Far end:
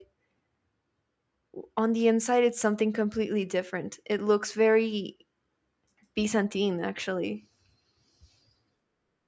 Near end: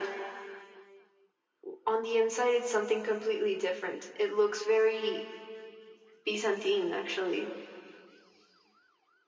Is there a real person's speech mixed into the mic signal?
No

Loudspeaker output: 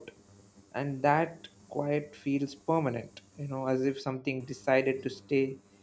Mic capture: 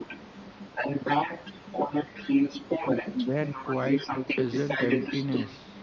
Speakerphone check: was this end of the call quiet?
No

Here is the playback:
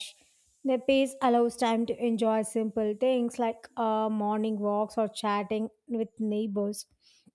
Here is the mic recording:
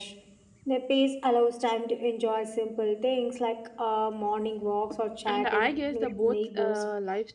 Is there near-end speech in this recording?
Yes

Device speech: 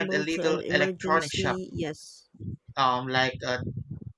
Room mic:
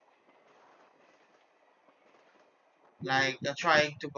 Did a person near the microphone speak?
Yes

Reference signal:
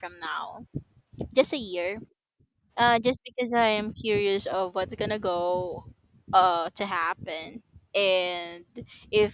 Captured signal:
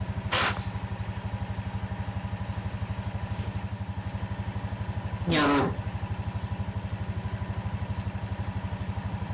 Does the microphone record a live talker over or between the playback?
Yes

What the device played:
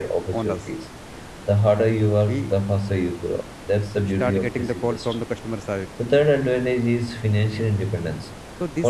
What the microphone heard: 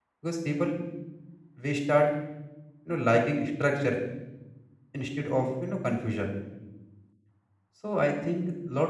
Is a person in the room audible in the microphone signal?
Yes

